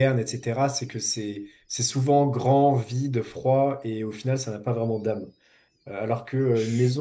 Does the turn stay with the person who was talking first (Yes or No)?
Yes